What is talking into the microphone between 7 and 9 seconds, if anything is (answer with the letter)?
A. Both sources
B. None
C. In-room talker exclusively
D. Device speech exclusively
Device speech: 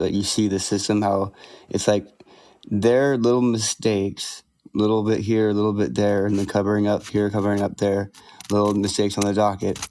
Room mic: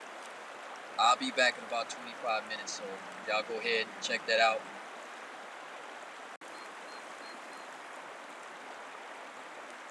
B